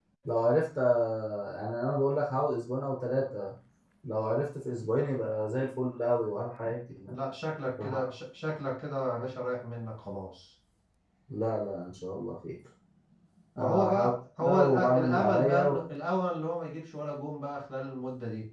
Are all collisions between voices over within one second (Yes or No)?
No